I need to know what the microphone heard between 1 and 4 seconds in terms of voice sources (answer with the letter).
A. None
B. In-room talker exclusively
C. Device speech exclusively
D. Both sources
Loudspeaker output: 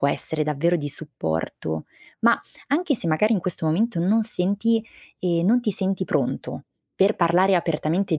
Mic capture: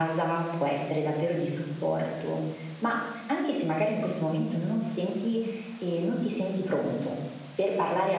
C